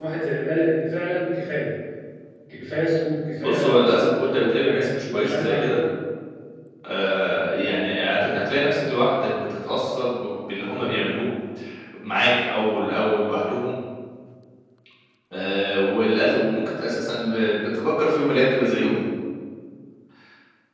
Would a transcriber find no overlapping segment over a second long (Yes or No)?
No